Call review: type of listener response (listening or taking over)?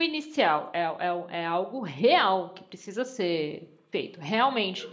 listening